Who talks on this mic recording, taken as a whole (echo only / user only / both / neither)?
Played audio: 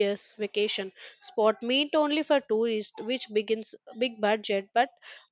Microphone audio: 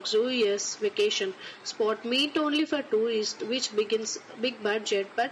echo only